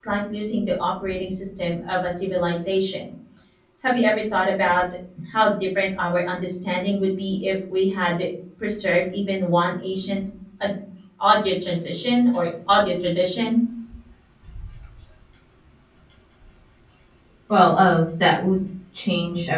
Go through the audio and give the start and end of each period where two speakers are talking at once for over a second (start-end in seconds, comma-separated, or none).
none